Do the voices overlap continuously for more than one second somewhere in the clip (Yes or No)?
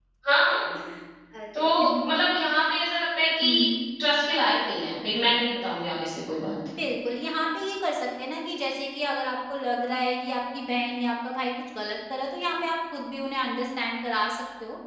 No